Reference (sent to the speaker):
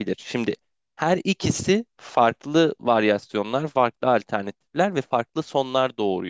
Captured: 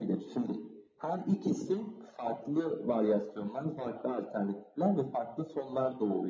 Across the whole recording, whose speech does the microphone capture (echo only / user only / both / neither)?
echo only